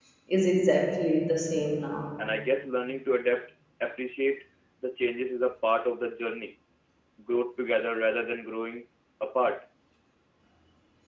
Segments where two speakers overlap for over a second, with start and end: none

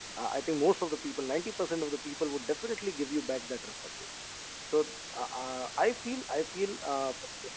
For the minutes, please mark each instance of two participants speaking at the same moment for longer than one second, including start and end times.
none

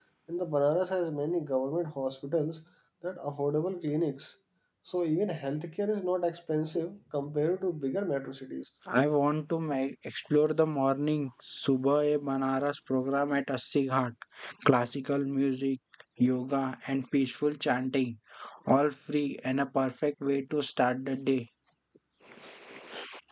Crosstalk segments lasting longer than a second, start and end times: none

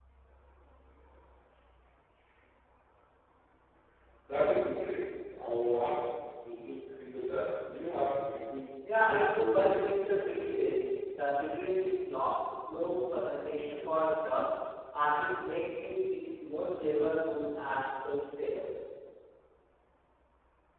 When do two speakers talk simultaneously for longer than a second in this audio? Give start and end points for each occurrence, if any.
9.0-10.3

